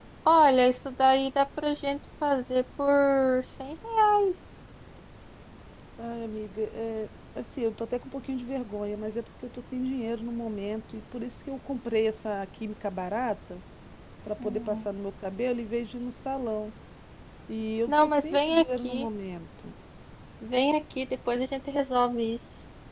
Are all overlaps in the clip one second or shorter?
No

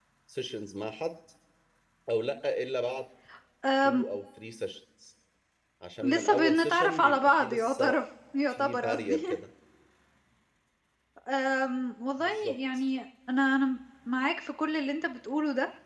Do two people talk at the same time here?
Yes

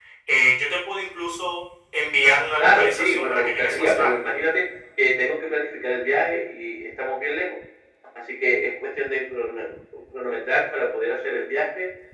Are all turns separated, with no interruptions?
No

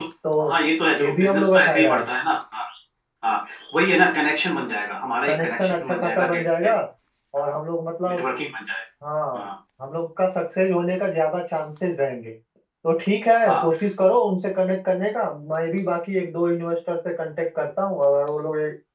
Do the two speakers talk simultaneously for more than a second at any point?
Yes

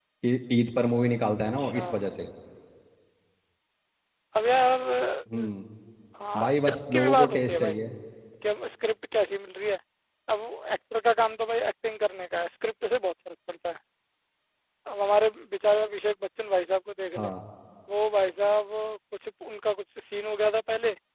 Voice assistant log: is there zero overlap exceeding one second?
No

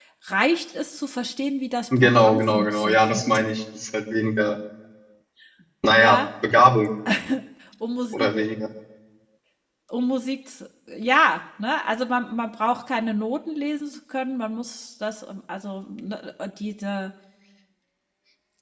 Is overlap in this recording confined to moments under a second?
No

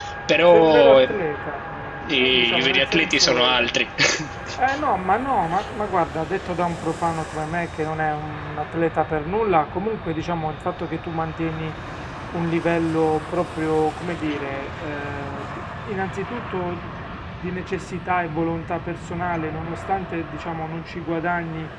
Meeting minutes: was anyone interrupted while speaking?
Yes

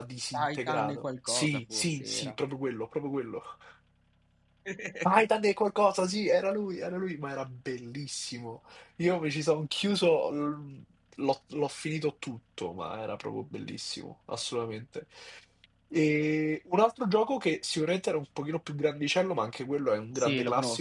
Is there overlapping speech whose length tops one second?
Yes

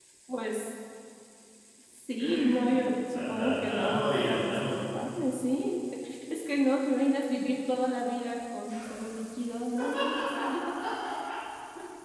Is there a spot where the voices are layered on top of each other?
Yes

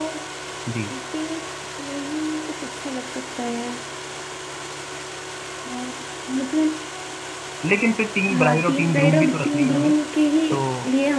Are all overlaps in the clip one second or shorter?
No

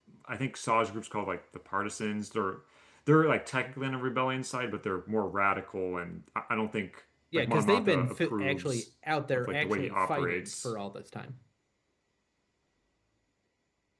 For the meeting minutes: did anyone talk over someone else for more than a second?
Yes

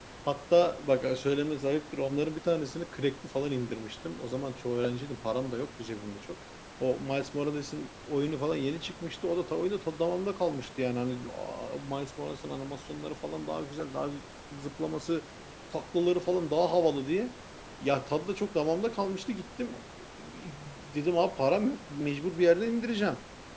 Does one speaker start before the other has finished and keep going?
No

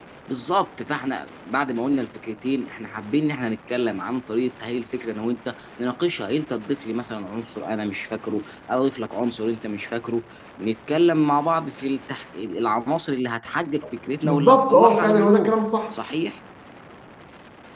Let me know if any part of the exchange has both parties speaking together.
Yes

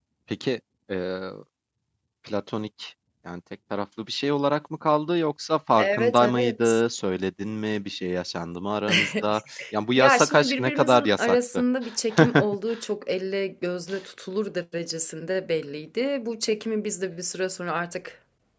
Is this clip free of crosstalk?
No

